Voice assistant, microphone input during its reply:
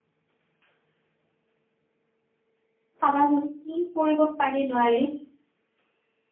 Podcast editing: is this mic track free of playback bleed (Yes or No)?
Yes